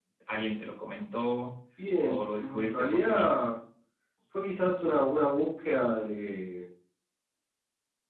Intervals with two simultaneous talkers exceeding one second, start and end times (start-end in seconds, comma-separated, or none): 2.0-3.5